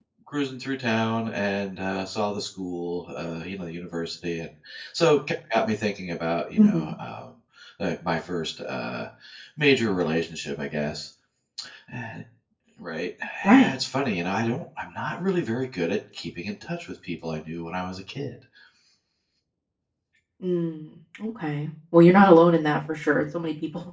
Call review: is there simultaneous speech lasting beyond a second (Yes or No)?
No